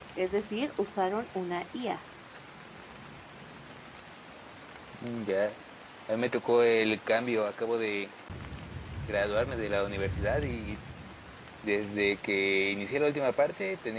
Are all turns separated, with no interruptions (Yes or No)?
Yes